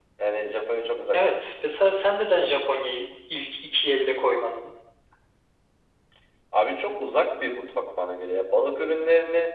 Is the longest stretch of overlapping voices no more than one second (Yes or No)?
Yes